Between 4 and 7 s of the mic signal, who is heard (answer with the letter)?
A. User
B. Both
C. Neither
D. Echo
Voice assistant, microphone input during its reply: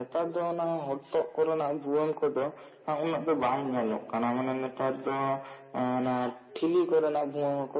D